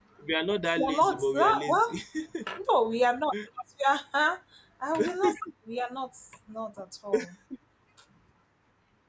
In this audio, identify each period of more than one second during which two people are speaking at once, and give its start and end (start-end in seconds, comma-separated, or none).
0.8-2.0